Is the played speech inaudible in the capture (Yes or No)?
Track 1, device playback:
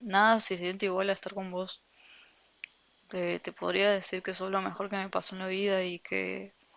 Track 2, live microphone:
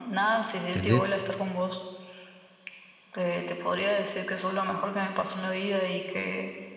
No